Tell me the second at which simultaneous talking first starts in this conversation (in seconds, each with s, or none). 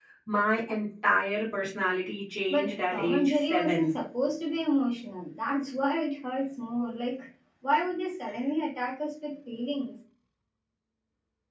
2.5 s